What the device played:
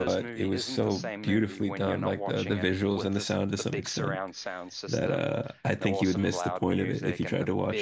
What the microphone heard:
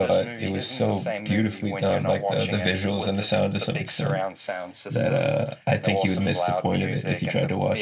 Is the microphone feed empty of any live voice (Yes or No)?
Yes